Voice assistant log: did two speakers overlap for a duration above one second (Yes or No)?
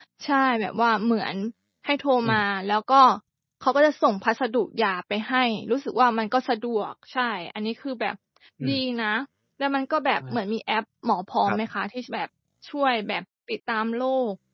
No